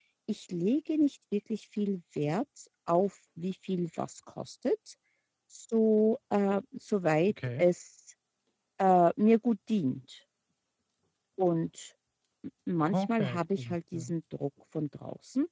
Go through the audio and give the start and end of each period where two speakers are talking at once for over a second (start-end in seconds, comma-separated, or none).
12.9-14.1